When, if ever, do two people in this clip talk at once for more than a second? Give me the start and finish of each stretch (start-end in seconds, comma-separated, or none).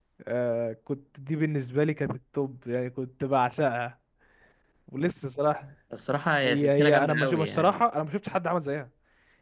6.4-7.8